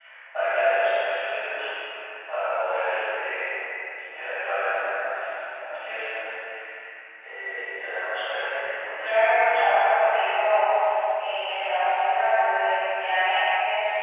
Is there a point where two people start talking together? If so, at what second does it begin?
8.9 s

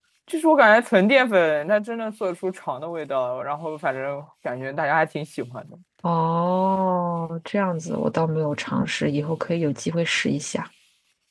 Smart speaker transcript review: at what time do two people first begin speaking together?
none

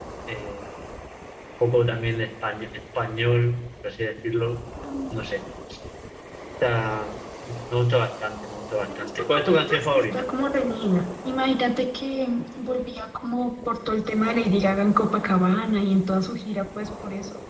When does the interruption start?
8.9 s

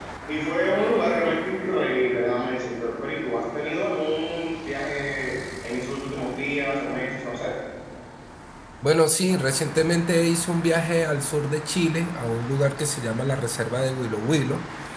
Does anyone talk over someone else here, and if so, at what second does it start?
none

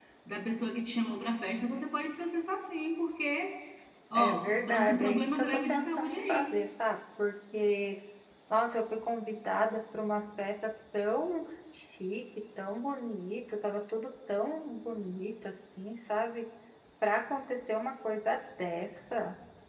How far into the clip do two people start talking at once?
4.1 s

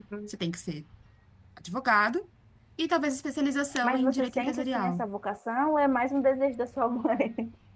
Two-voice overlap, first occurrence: 3.8 s

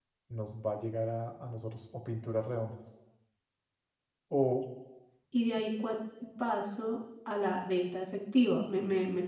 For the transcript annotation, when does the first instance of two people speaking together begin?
none

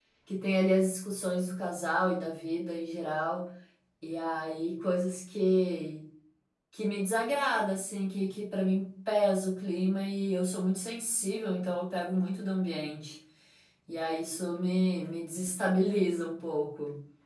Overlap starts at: none

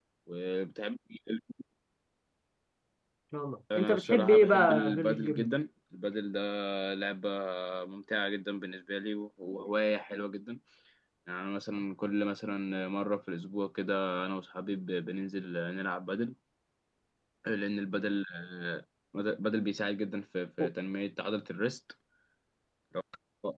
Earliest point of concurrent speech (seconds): 3.8 s

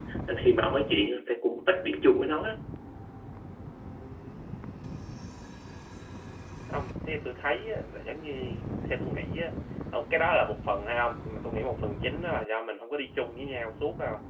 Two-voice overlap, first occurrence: none

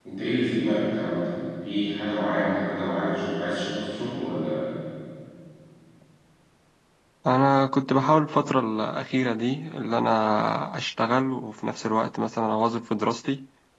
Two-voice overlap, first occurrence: none

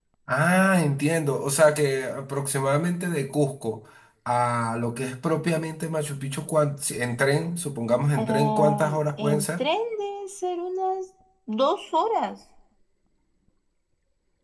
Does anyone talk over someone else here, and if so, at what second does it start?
8.2 s

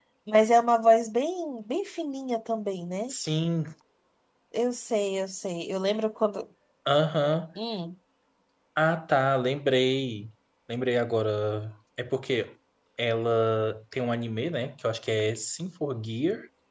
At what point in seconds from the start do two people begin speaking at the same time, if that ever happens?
none

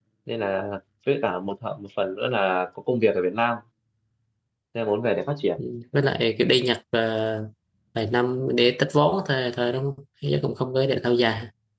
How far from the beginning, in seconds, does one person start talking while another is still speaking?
none

